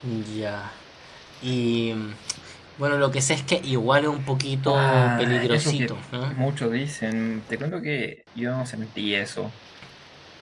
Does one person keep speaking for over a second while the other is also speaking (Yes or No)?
Yes